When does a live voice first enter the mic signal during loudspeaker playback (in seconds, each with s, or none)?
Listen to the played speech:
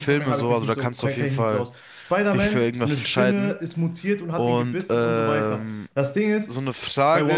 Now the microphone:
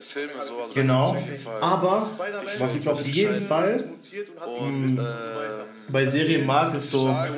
0.7 s